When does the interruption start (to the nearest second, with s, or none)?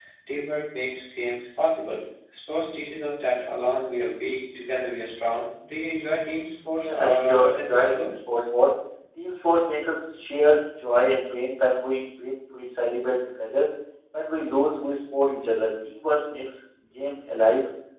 7 s